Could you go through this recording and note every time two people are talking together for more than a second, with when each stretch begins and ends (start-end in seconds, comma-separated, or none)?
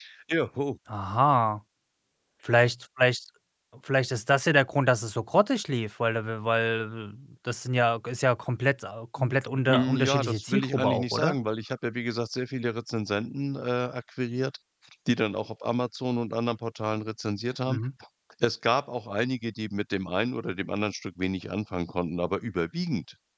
9.6-11.3